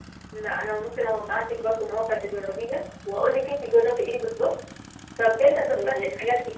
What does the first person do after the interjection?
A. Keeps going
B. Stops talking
A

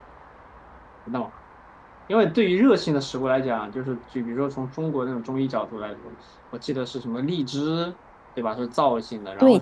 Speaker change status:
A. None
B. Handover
B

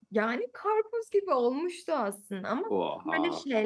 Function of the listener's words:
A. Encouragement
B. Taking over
A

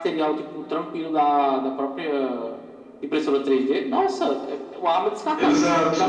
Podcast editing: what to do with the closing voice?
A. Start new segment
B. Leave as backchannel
B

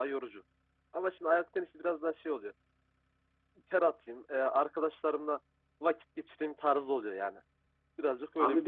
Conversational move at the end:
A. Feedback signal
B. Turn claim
B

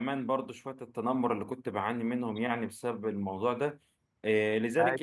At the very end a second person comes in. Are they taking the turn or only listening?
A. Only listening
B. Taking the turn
A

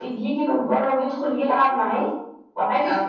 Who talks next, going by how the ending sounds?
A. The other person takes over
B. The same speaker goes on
B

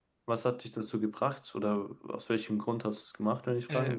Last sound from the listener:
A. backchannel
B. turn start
B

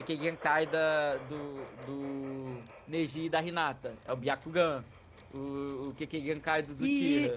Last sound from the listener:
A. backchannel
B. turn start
B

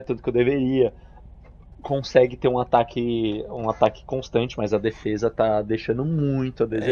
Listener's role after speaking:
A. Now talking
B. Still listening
A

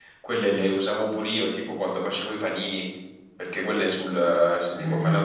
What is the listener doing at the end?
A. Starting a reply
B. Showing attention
B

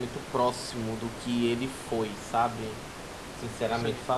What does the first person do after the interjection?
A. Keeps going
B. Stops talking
A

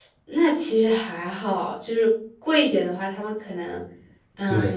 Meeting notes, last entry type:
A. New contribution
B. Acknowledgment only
A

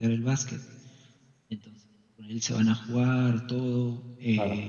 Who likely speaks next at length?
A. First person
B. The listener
A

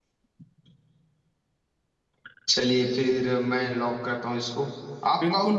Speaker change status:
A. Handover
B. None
B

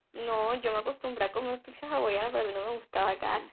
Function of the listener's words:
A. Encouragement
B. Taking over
B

